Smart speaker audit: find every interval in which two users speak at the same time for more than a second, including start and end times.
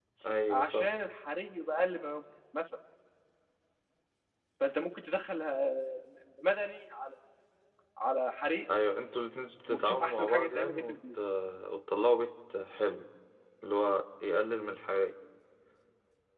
9.7-11.2

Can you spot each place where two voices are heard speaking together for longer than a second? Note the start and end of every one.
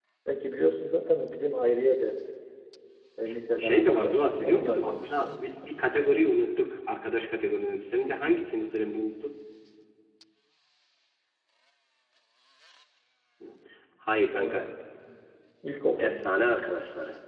3.6-5.3

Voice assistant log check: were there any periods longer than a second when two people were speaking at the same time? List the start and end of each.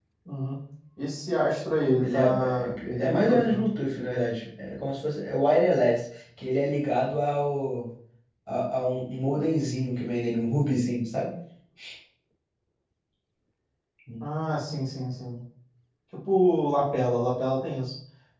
2.0-3.7

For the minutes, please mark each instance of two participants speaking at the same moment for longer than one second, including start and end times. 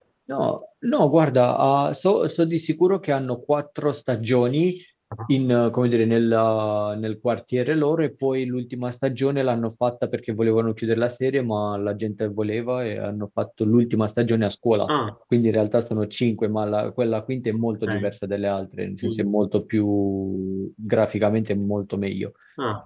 none

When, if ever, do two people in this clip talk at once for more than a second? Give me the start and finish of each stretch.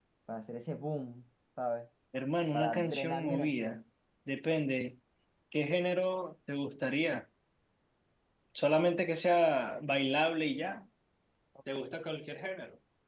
2.5-3.8

